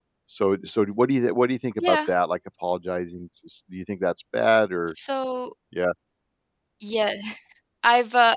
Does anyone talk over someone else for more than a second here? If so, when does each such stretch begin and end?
none

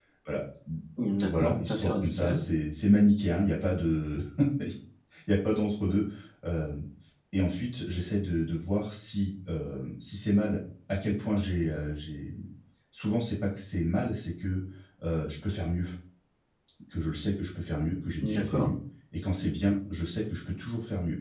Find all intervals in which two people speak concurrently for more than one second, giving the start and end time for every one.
1.2-2.4

